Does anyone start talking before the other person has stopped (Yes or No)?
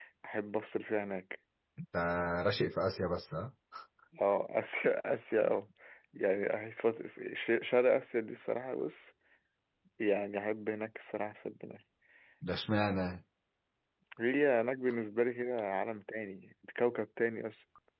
No